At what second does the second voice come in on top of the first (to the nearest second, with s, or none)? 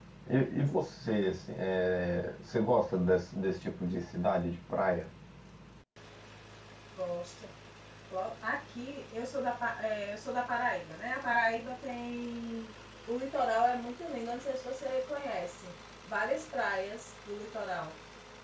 none